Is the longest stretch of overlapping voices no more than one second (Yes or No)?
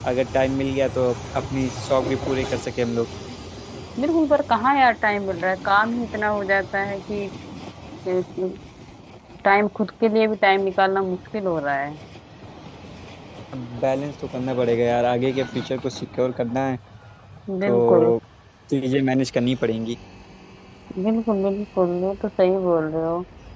Yes